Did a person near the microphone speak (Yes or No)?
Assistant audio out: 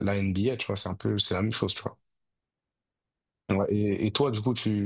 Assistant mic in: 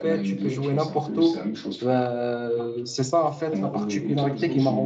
Yes